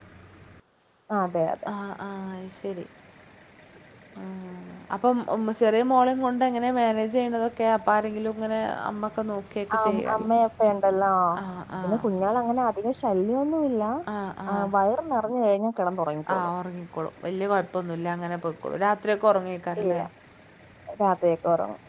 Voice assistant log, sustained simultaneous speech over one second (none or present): none